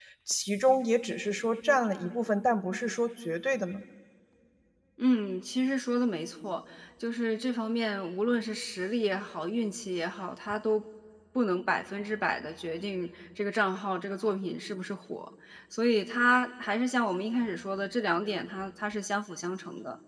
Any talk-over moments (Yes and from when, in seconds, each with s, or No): No